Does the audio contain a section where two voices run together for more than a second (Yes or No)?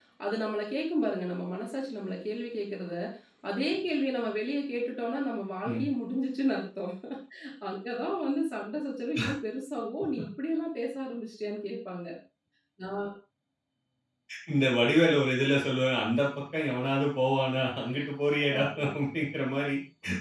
No